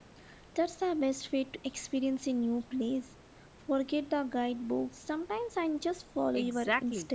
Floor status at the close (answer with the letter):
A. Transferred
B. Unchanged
A